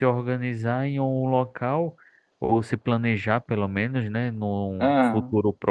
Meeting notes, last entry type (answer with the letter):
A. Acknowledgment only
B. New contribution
A